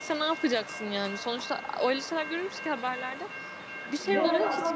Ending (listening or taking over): taking over